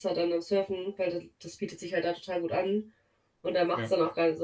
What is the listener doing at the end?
listening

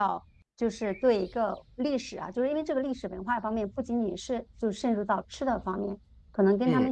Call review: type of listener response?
listening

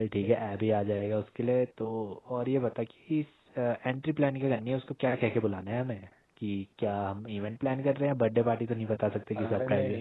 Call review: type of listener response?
taking over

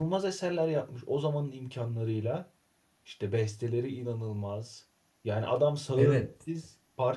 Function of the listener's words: listening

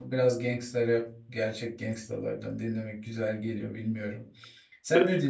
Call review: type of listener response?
taking over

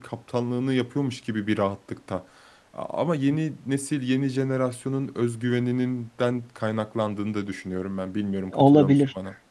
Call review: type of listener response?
taking over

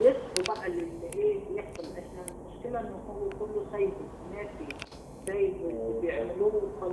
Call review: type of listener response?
listening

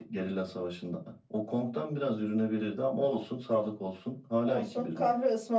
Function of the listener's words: taking over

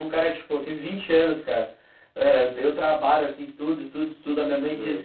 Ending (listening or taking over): listening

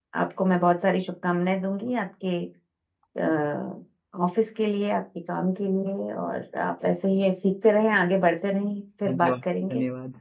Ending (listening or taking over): taking over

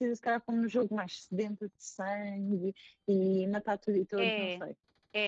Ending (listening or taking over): taking over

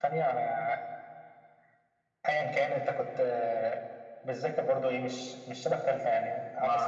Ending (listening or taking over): taking over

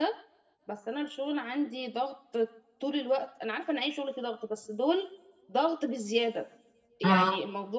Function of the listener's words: listening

